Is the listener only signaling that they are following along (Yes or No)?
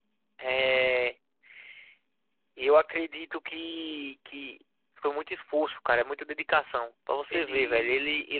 Yes